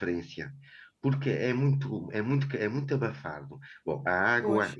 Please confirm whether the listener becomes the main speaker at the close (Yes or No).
No